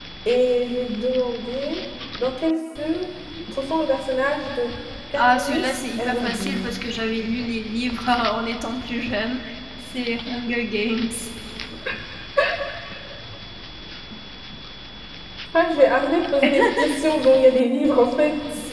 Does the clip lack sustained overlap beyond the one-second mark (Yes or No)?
No